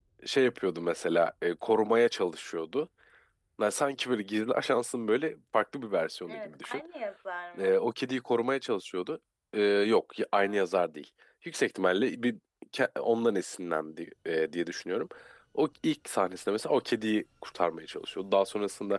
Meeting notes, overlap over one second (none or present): none